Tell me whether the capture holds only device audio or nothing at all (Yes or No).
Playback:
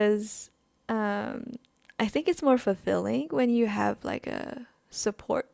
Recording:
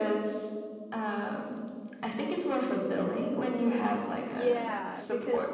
No